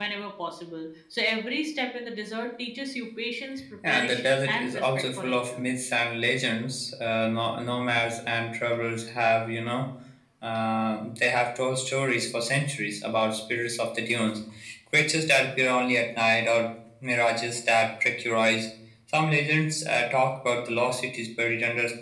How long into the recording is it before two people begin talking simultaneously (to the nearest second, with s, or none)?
4 s